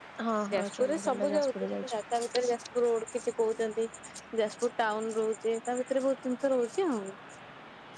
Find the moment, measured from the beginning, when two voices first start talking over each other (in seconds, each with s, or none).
0.5 s